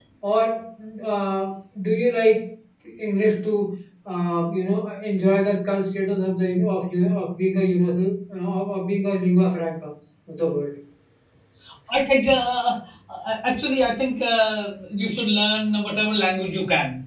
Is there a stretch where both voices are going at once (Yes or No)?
No